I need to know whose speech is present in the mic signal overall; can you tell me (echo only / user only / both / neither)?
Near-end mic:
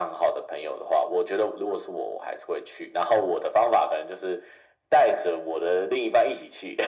echo only